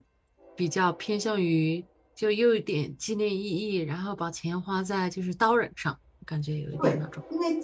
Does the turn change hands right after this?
Yes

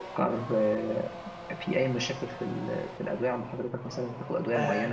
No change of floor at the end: No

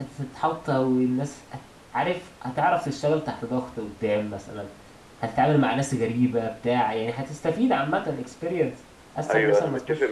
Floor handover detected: Yes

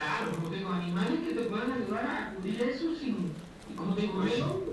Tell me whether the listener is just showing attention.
Yes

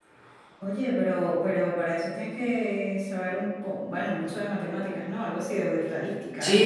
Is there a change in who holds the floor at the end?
Yes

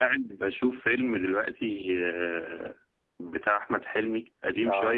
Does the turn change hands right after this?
No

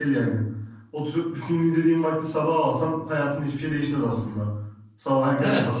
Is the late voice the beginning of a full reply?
Yes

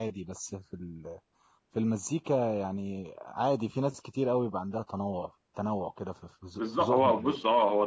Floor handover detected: Yes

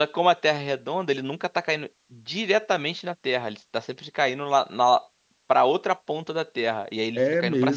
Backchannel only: No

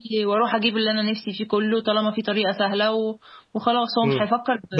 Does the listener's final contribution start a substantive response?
Yes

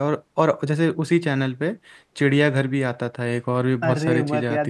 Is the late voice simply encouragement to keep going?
No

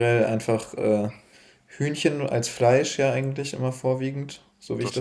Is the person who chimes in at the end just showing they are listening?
Yes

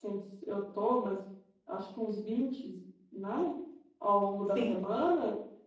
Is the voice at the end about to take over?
No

